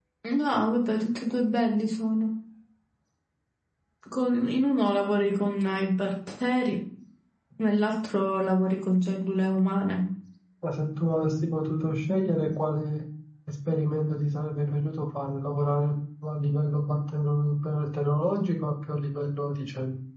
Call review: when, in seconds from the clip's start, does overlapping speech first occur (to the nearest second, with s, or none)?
none